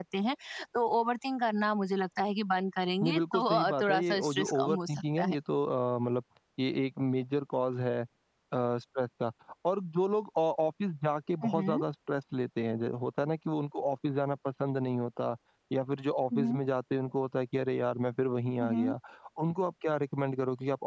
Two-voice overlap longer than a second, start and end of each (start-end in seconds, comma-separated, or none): 3.0-5.3